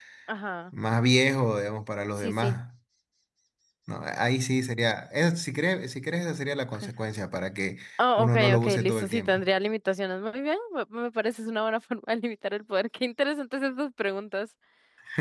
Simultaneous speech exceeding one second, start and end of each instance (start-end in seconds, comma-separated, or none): 8.2-9.5